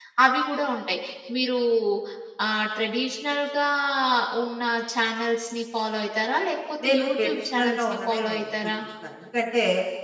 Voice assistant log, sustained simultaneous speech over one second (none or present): present